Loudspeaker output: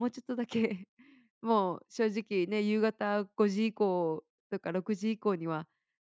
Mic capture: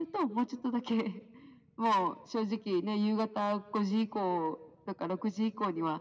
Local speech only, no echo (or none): none